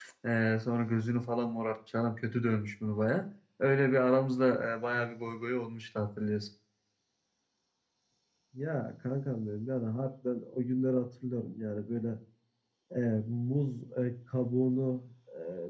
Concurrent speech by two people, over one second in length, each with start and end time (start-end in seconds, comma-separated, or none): none